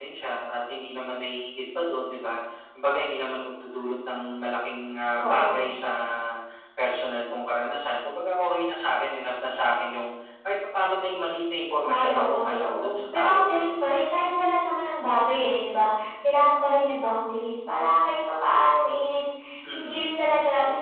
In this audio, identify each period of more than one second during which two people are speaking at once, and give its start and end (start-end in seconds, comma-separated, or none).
11.8-13.7